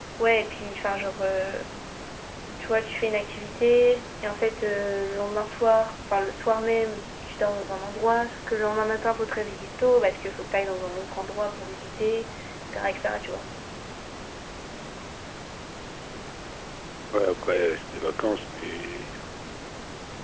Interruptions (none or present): none